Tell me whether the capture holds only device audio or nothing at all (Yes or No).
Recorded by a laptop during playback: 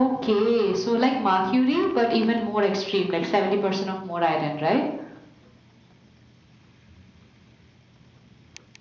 Yes